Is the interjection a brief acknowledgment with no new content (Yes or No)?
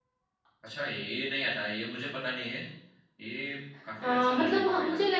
No